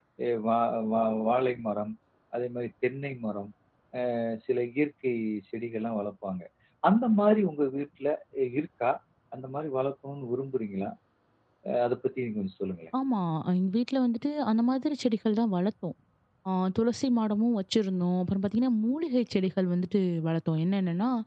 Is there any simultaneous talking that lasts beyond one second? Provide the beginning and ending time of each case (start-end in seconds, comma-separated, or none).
none